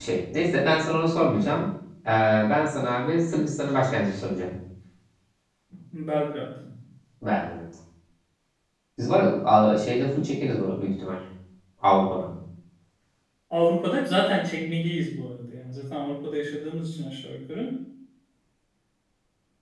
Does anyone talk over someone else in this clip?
No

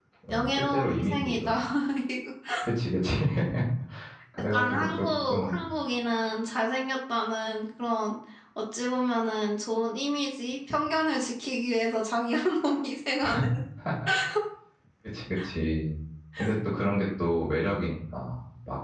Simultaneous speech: Yes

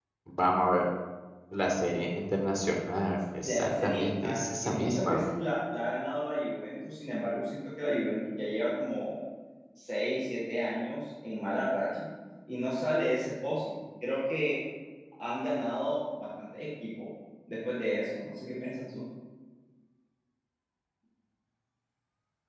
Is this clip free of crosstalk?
No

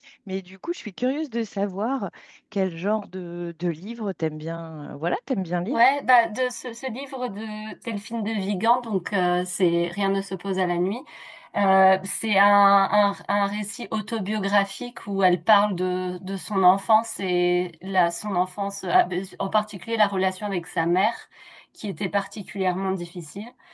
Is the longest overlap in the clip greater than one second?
No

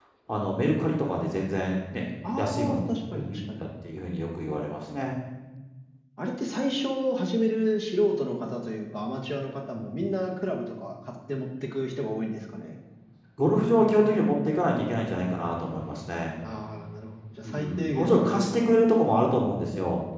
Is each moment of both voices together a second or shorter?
No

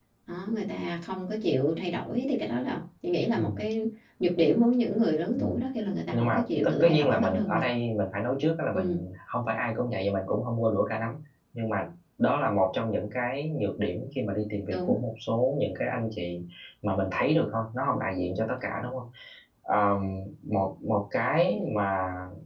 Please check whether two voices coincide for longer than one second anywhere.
Yes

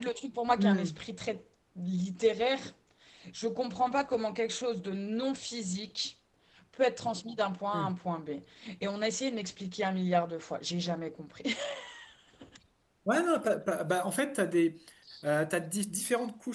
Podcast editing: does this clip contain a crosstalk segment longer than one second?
No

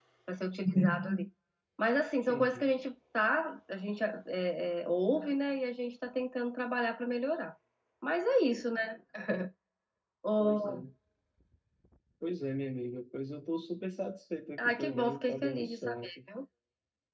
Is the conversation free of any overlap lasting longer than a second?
No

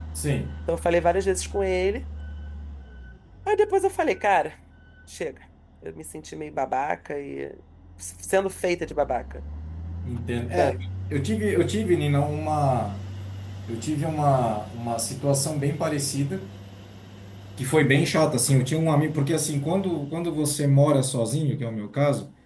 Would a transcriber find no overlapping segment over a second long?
Yes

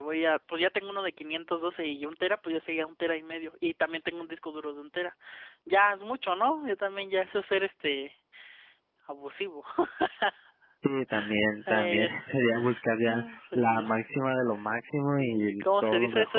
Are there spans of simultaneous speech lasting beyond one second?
Yes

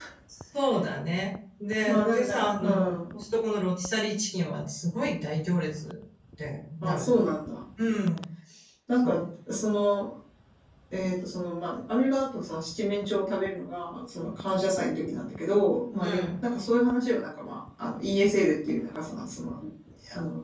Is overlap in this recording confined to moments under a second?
No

